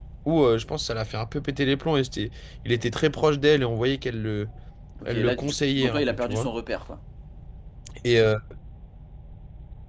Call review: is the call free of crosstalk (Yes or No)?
No